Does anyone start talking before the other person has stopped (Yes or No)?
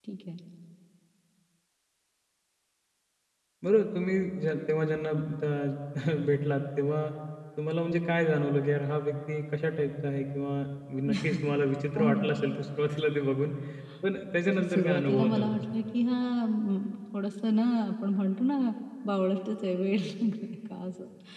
Yes